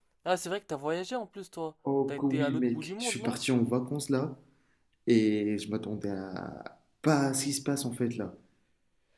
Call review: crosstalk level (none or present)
present